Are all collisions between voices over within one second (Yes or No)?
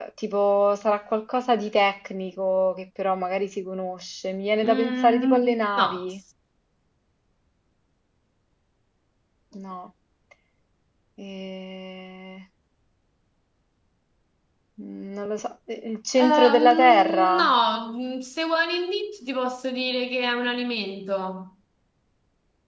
No